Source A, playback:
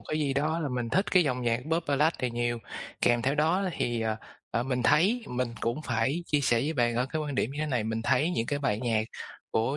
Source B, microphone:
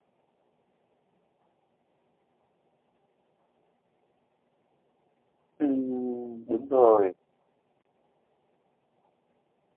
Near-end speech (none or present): present